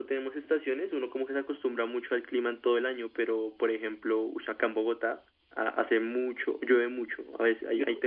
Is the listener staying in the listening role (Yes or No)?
Yes